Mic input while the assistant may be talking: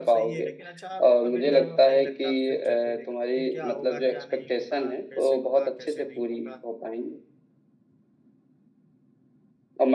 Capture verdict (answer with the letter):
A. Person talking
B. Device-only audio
A